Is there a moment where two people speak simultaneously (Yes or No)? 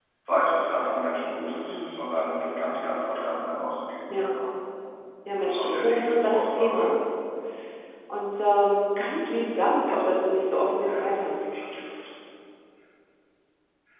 Yes